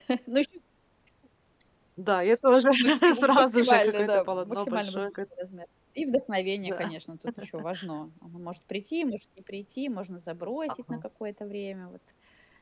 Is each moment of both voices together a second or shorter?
No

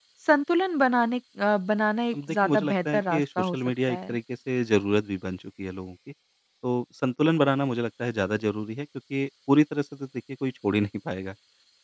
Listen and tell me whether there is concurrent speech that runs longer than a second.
Yes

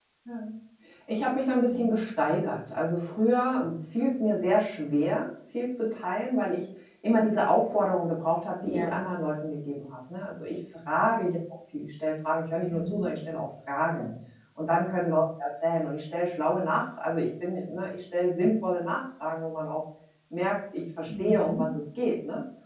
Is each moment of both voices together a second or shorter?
Yes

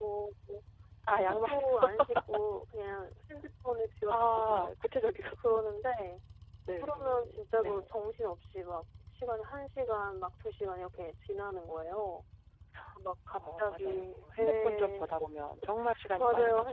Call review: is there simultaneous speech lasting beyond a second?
Yes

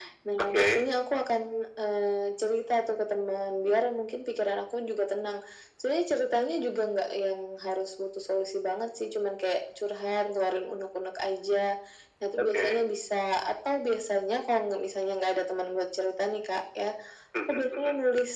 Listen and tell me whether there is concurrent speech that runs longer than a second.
No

